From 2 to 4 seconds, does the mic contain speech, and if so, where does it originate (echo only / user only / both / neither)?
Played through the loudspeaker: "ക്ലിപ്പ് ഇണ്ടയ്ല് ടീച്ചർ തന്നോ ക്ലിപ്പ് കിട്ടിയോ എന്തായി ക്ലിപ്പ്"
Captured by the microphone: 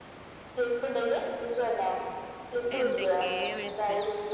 both